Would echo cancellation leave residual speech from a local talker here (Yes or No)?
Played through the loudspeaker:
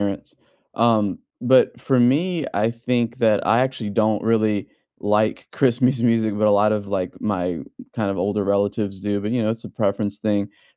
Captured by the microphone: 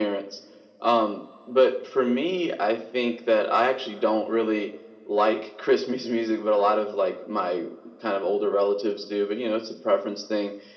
No